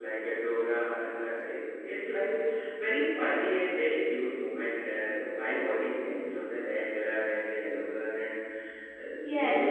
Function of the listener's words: taking over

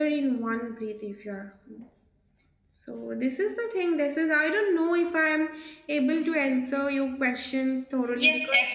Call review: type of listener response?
taking over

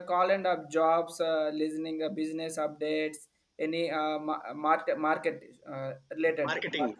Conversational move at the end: taking over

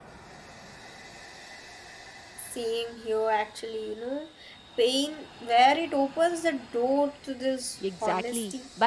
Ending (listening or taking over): taking over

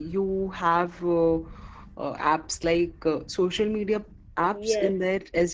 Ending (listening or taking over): taking over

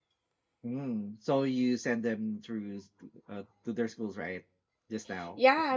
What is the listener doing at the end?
taking over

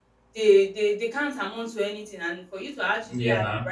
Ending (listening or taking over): listening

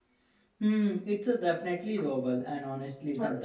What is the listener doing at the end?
listening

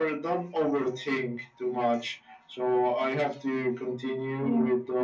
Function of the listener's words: listening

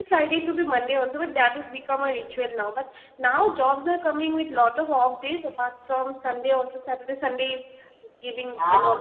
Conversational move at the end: listening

